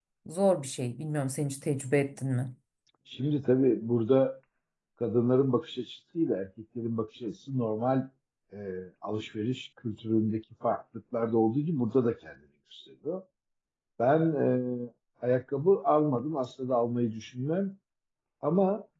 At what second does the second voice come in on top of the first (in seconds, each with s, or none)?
none